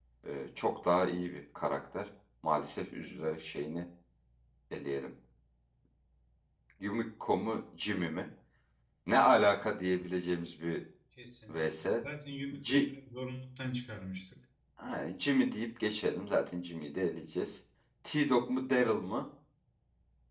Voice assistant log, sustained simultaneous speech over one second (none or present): none